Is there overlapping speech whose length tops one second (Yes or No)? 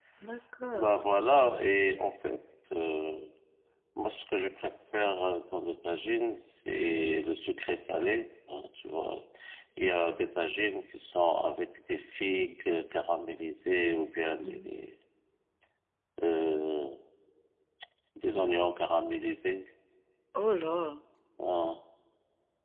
No